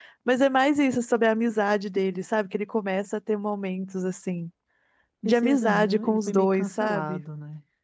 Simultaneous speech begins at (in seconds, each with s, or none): 5.2 s